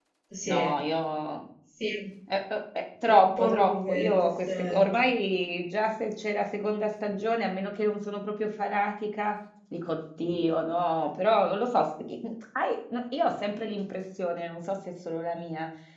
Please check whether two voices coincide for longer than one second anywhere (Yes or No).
Yes